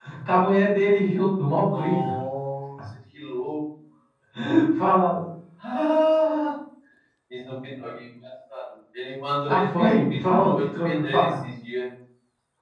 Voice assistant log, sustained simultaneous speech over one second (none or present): present